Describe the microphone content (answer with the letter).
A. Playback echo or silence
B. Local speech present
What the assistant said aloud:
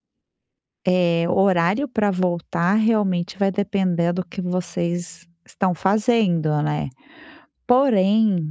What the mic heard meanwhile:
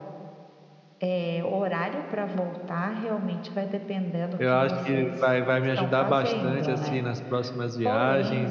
B